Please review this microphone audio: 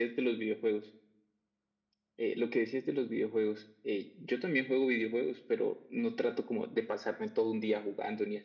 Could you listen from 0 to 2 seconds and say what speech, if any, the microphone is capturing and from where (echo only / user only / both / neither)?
echo only